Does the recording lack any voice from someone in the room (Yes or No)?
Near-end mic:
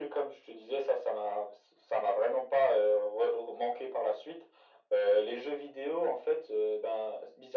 Yes